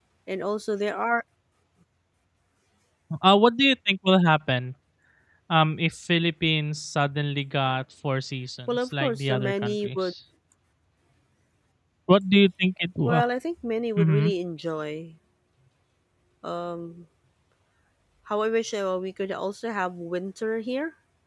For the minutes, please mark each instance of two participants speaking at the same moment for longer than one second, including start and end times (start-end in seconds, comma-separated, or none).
8.7-10.1